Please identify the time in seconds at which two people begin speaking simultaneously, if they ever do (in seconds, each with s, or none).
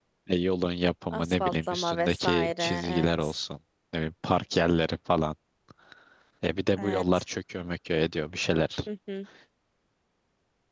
1.1 s